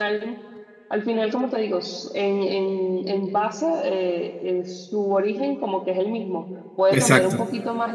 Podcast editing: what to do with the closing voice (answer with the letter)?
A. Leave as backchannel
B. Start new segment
A